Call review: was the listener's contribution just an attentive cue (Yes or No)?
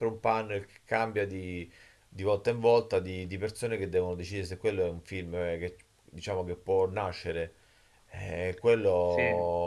Yes